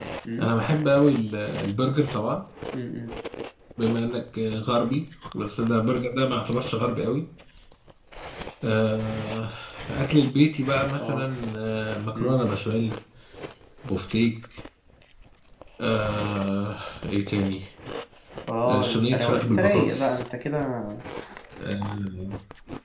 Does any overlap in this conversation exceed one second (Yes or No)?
Yes